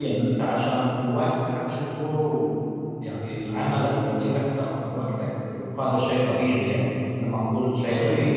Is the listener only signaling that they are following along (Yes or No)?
Yes